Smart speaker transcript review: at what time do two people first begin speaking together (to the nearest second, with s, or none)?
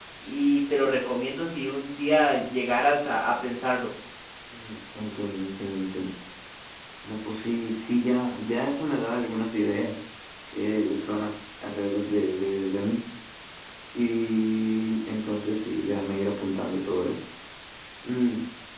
none